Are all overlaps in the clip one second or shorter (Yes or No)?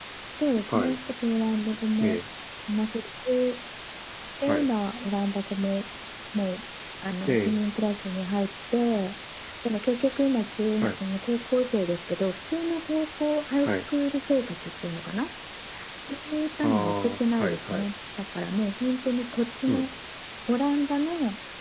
No